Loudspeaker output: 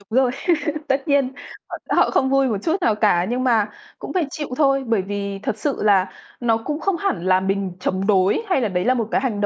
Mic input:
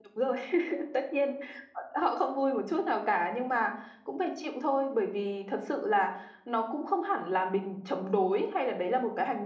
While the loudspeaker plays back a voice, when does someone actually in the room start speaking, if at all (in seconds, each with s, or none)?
none